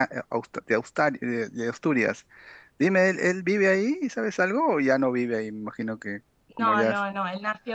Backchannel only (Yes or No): No